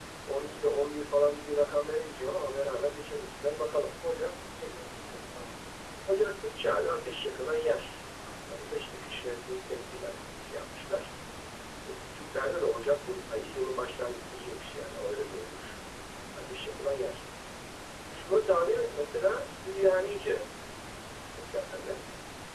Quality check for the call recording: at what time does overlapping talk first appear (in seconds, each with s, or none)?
none